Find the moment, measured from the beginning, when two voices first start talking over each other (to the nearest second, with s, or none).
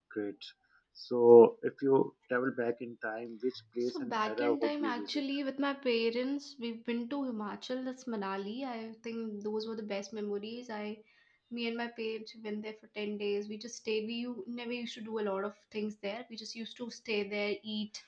4 s